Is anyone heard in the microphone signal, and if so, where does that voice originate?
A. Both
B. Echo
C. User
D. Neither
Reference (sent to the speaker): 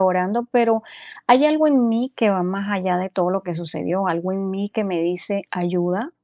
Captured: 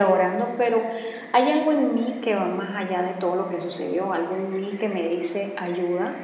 B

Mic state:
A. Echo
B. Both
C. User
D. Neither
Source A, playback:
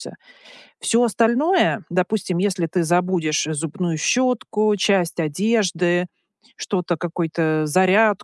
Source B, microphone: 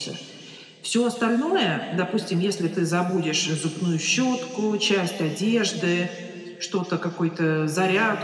A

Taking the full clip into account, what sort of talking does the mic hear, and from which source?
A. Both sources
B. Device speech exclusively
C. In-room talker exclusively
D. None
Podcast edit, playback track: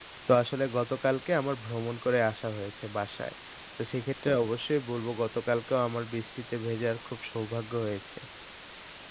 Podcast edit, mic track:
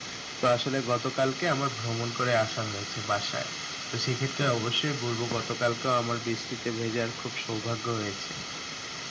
B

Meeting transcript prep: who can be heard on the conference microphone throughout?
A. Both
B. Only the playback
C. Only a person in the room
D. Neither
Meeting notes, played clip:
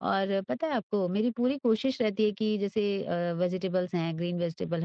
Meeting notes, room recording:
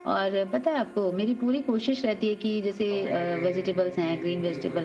A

